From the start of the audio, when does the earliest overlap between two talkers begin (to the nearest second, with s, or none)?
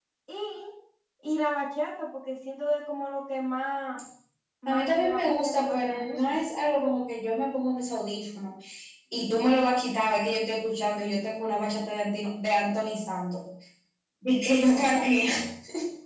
5 s